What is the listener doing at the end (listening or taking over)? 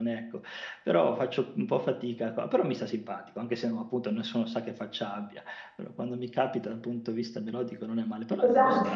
taking over